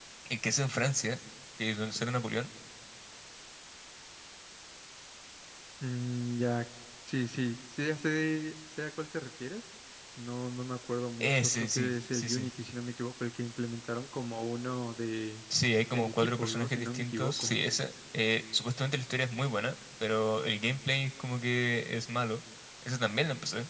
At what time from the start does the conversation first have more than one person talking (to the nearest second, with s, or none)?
11 s